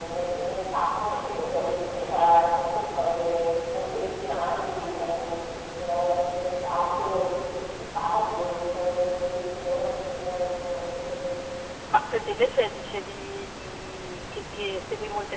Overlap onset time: none

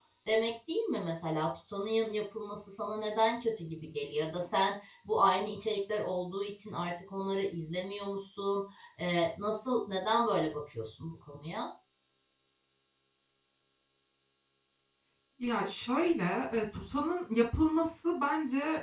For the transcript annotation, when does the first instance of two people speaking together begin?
none

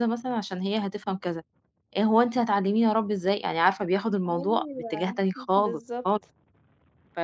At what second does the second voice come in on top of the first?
4.2 s

